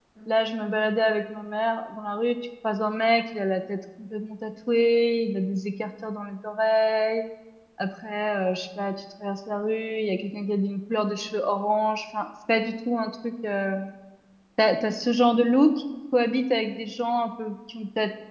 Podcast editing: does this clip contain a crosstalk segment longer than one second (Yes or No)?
No